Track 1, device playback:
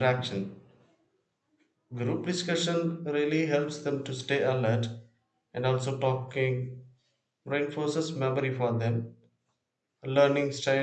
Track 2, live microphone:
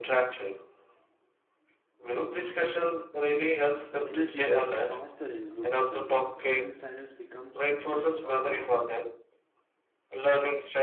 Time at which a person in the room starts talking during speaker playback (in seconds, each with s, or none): 4.0 s